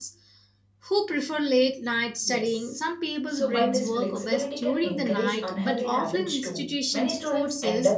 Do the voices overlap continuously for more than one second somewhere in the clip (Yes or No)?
Yes